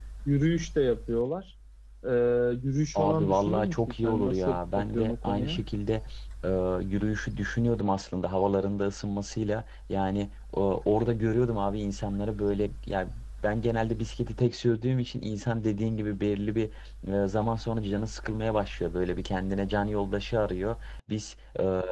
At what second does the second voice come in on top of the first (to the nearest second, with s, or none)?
3 s